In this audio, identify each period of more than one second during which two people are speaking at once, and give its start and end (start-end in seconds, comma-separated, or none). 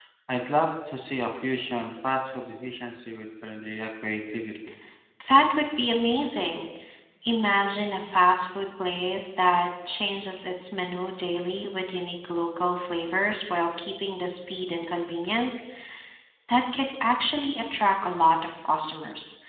none